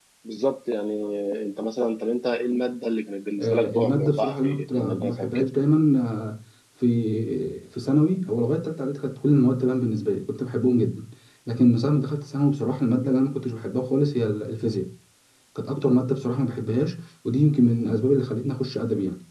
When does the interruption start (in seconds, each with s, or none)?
3.4 s